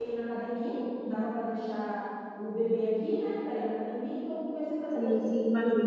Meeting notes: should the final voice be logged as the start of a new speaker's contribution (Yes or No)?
Yes